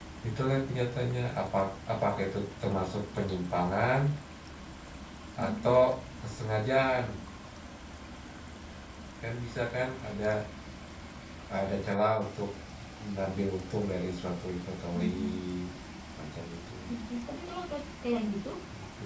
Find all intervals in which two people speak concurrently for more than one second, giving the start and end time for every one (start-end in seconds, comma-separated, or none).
none